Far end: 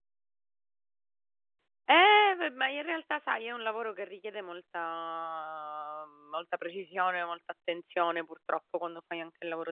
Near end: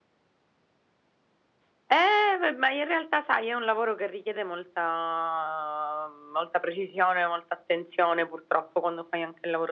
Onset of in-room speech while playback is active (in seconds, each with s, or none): none